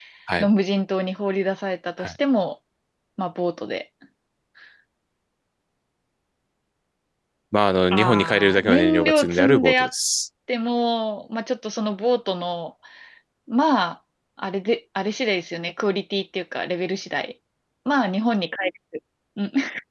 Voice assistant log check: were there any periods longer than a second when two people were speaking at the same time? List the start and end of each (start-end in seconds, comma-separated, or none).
7.9-9.9